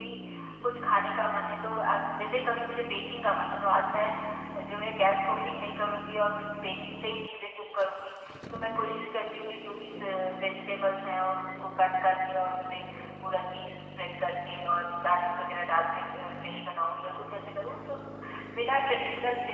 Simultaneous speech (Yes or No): No